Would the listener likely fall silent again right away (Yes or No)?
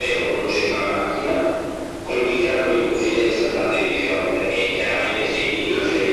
No